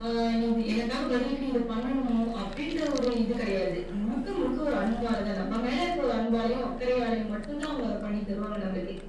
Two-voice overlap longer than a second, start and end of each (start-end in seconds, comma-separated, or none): none